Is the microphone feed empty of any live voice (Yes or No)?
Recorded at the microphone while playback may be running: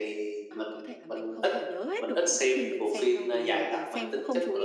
No